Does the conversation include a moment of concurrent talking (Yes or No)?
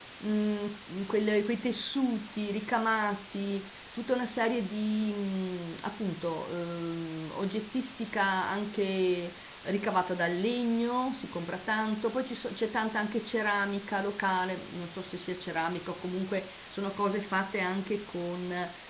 No